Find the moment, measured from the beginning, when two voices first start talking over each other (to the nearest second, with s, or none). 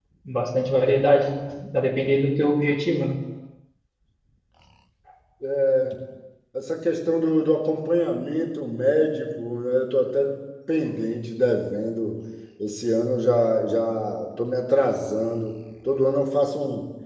none